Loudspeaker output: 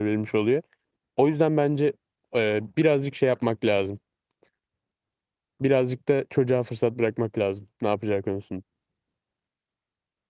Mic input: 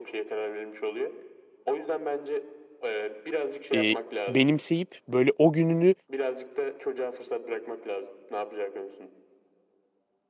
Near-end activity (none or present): present